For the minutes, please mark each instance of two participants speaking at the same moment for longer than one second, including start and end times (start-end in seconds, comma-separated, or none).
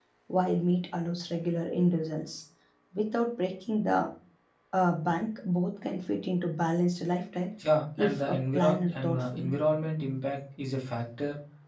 8.0-9.6